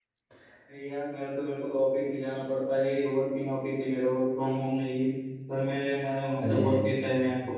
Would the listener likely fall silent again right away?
Yes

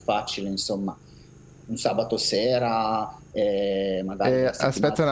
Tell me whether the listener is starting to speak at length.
Yes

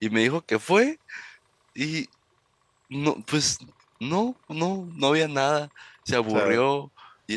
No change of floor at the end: Yes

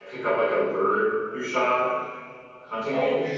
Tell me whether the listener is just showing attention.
No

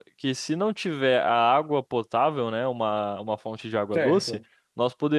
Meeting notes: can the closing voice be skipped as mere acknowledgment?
Yes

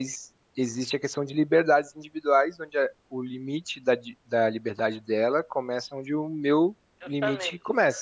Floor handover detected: Yes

